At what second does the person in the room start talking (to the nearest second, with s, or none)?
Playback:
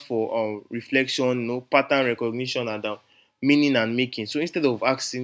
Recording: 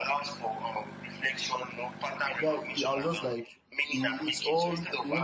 2 s